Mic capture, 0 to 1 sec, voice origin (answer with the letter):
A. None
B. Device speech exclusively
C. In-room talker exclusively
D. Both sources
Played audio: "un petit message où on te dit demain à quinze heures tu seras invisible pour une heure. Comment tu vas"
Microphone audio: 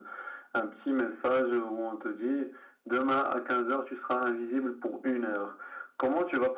B